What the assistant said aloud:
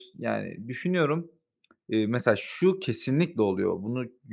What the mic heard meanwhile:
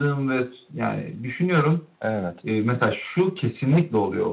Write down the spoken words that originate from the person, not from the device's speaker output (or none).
Evet.